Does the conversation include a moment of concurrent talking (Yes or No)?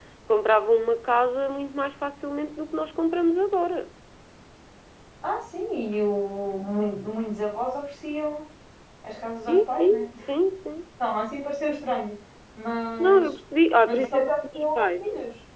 Yes